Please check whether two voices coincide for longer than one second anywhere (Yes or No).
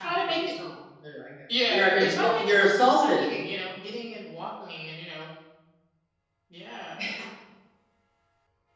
Yes